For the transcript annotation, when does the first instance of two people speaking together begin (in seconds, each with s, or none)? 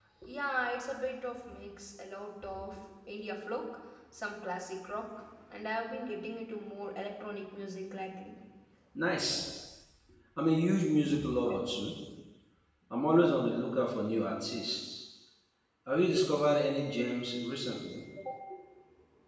none